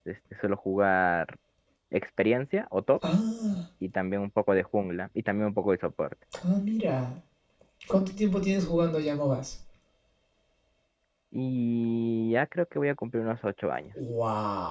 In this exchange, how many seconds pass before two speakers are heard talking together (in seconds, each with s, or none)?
none